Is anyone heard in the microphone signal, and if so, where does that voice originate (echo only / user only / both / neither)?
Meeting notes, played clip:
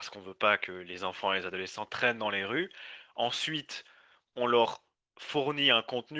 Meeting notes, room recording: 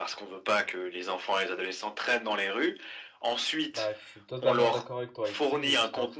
both